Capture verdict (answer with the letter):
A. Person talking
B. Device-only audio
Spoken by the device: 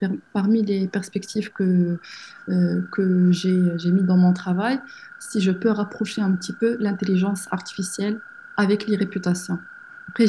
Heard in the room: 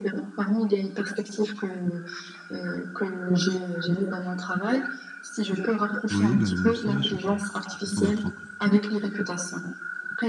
A